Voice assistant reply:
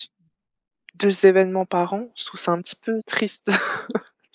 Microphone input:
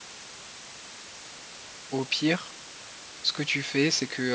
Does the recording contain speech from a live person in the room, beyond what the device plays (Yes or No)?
Yes